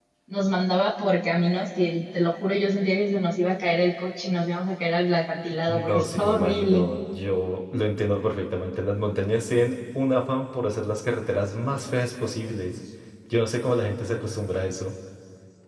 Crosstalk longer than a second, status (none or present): present